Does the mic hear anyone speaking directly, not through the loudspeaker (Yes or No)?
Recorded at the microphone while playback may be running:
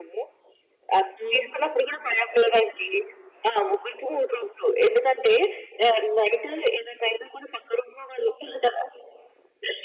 Yes